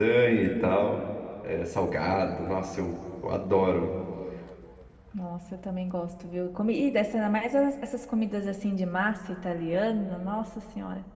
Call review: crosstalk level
none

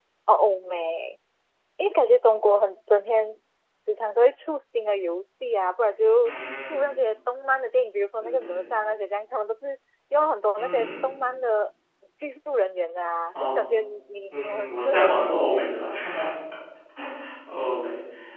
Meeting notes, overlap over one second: present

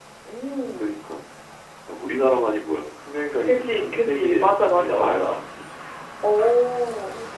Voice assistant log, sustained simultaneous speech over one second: present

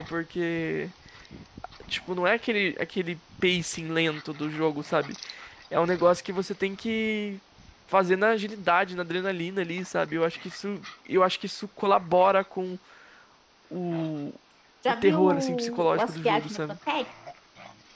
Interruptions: present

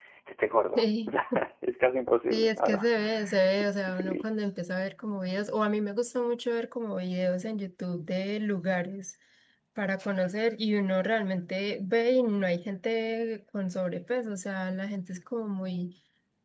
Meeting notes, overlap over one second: none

